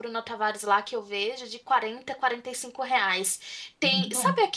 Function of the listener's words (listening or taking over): listening